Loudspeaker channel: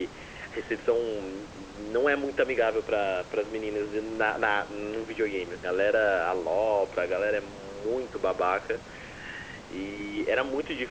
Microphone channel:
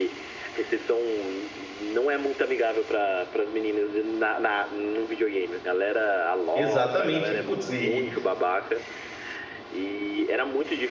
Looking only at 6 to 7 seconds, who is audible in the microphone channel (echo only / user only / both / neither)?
both